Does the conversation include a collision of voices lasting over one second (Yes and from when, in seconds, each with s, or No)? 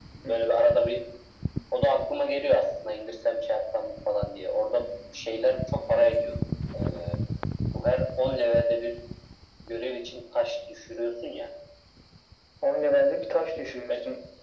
No